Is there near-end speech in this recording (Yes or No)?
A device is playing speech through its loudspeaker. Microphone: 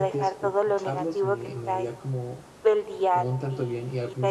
Yes